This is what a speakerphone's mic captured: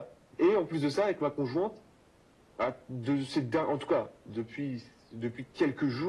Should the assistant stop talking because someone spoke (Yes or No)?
No